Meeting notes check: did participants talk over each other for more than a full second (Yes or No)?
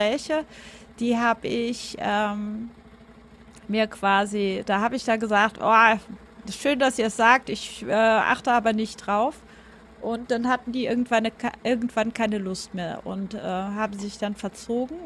No